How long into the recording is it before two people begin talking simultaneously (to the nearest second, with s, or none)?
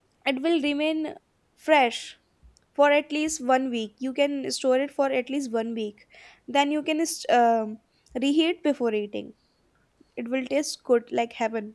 none